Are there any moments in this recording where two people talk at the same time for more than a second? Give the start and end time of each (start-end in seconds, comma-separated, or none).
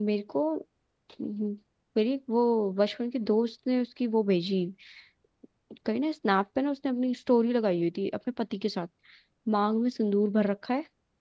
none